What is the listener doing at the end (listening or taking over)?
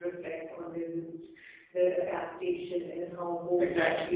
taking over